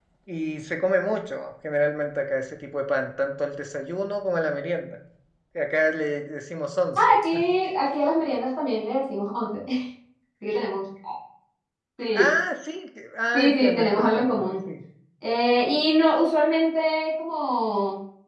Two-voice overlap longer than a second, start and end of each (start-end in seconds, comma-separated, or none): 13.3-14.6